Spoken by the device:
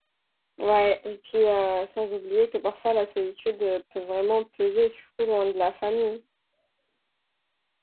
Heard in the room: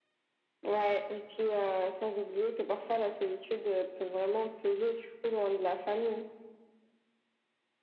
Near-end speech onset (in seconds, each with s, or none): none